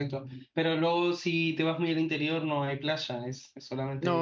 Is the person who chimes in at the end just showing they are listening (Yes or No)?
No